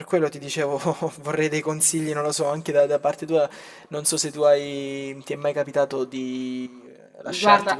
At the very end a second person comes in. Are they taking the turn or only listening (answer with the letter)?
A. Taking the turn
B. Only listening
B